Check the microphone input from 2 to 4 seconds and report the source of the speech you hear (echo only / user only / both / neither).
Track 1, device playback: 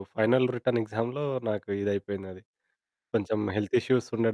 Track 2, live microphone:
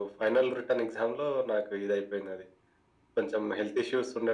echo only